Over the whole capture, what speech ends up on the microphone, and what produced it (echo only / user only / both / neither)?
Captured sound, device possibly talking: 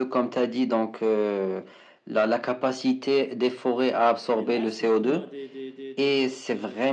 both